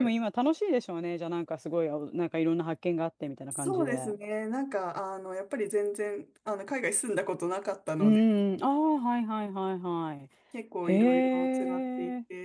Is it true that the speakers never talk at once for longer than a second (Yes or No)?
No